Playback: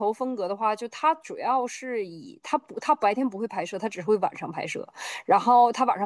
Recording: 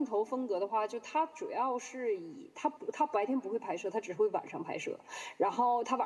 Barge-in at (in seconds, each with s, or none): none